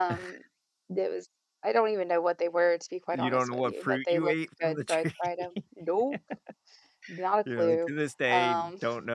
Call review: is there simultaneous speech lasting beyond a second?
Yes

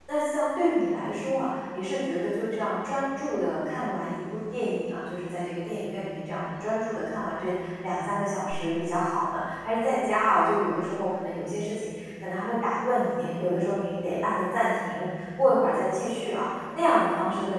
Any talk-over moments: No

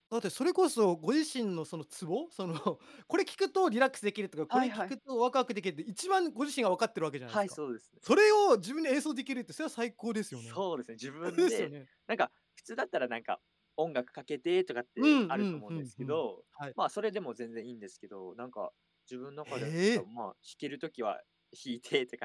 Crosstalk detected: Yes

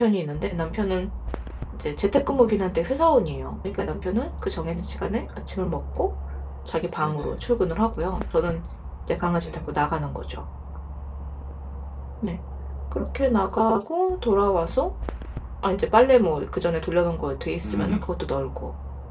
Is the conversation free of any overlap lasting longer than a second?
Yes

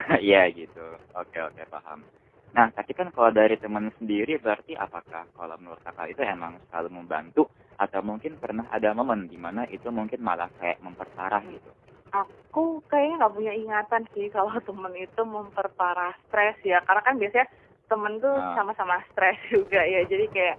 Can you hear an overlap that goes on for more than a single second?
No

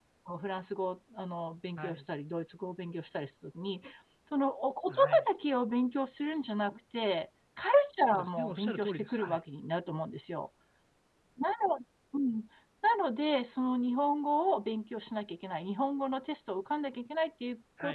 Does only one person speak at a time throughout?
No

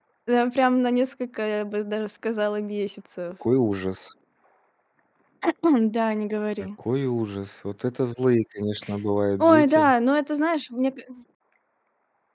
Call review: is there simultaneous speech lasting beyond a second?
No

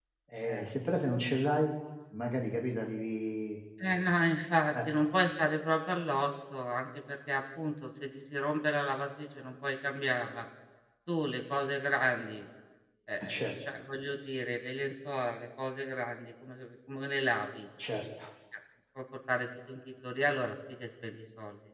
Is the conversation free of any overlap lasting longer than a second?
Yes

